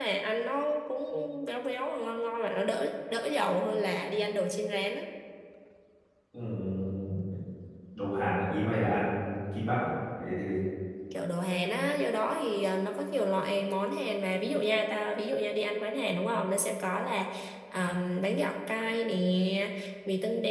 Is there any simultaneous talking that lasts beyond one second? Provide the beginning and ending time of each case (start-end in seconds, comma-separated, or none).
none